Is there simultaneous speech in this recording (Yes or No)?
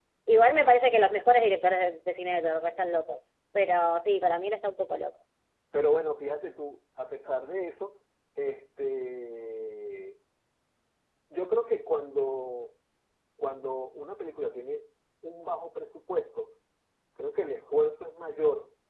No